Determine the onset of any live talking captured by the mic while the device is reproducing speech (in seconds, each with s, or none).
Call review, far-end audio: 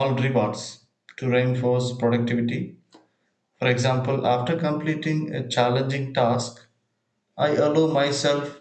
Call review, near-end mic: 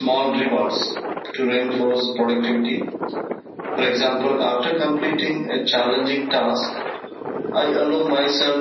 none